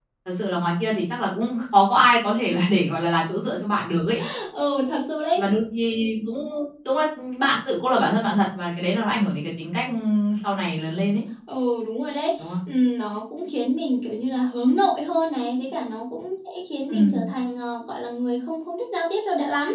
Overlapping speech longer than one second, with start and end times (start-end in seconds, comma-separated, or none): none